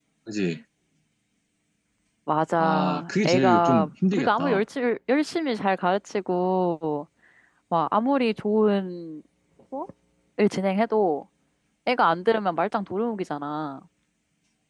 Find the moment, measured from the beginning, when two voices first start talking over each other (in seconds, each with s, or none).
2.5 s